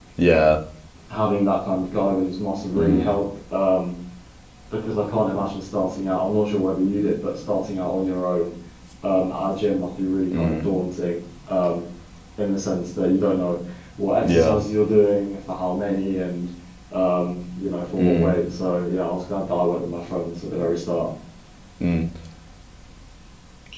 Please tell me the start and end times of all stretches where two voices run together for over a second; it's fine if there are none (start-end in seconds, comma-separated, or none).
none